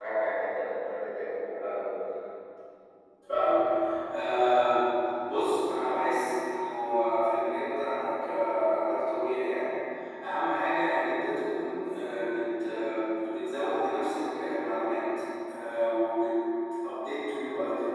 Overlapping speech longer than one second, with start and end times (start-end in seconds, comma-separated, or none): none